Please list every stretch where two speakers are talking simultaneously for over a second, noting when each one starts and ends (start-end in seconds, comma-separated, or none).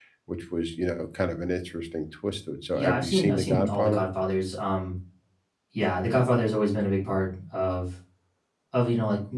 2.7-4.0